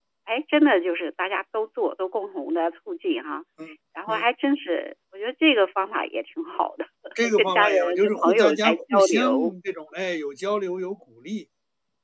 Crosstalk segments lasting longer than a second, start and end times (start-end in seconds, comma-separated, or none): 7.4-9.5